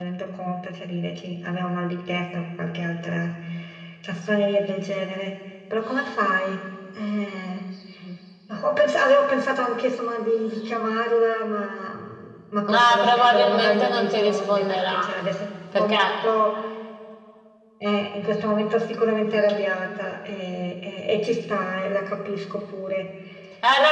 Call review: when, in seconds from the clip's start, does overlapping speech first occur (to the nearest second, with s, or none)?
13 s